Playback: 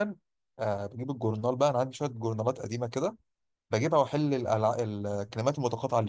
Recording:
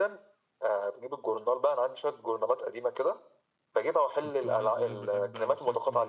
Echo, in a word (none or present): present